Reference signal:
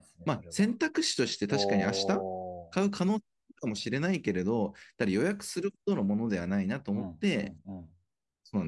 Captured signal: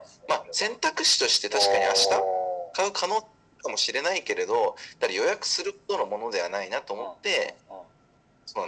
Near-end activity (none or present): none